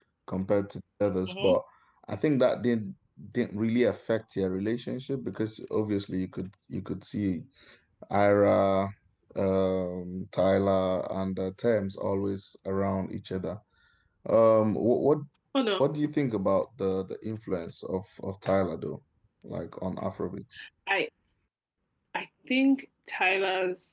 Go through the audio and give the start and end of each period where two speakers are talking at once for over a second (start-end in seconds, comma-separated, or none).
none